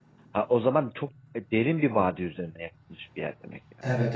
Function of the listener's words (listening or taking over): taking over